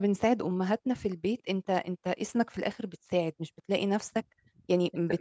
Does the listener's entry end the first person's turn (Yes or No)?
No